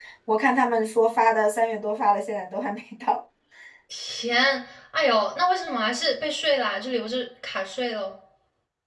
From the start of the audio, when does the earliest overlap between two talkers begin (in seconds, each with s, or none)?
none